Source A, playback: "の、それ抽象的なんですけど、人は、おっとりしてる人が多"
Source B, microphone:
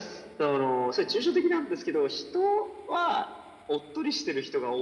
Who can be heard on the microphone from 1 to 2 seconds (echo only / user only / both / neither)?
echo only